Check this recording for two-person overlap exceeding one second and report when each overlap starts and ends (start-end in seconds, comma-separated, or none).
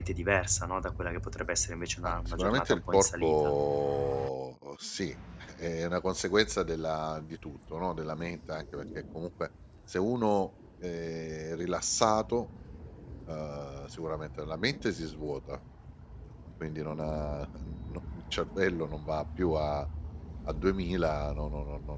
2.0-3.5